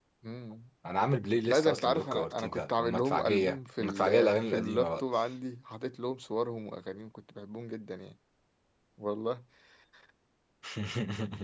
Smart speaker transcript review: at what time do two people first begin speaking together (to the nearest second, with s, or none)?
1 s